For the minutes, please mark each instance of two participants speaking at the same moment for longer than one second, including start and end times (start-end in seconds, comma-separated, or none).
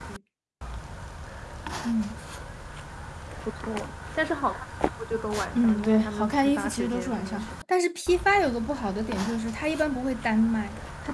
5.5-7.4